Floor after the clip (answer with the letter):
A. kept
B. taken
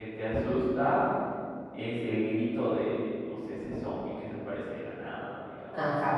B